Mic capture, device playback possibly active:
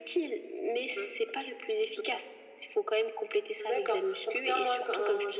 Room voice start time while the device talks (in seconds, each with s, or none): none